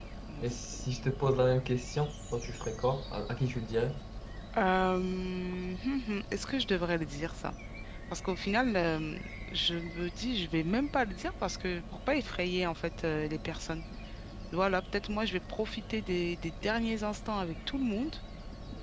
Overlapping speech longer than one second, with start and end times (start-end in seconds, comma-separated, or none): none